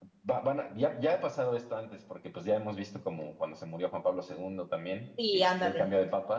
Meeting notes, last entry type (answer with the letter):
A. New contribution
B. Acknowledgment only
B